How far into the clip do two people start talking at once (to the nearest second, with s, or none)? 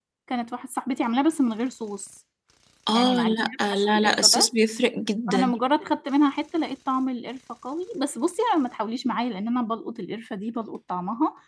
3 s